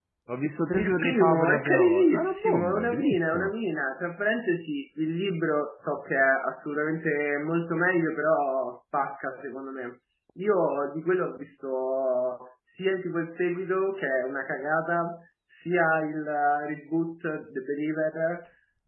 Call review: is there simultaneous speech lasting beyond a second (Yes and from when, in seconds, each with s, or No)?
Yes, from 0.7 s